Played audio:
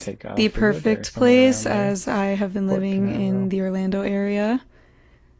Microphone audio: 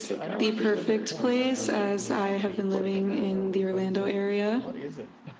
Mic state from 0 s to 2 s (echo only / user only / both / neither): both